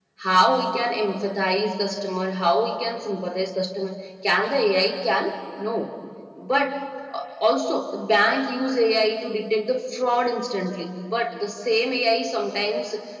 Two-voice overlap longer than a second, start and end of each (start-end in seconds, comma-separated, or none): none